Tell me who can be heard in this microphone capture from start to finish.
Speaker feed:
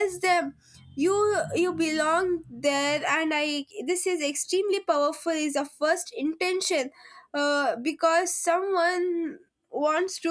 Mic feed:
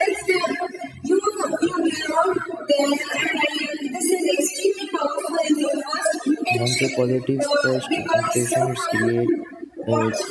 both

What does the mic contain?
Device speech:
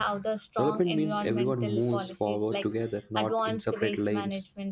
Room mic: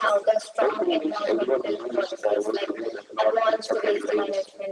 echo only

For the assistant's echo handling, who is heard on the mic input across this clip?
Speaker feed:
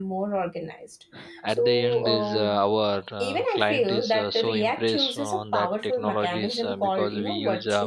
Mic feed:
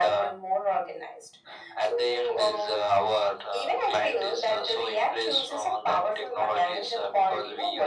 echo only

